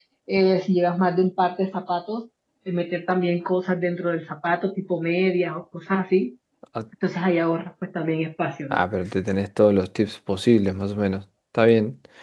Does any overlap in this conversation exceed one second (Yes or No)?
No